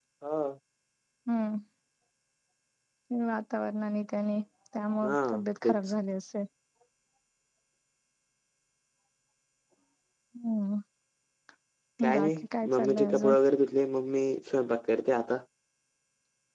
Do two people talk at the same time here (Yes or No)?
Yes